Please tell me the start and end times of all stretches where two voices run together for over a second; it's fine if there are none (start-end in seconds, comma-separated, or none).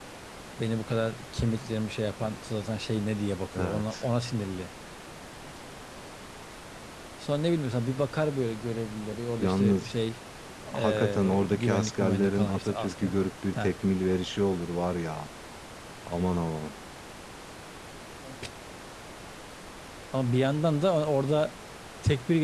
10.7-13.1